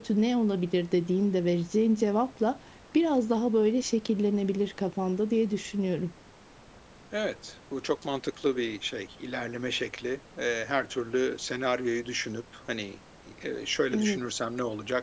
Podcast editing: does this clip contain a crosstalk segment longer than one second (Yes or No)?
No